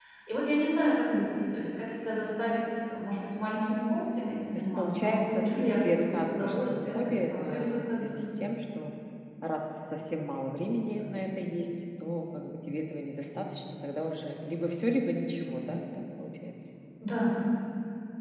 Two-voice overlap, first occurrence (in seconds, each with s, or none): 4.5 s